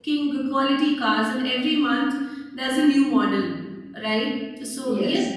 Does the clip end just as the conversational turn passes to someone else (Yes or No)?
No